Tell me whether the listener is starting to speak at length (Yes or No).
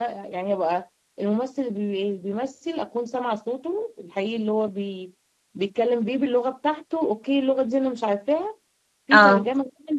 No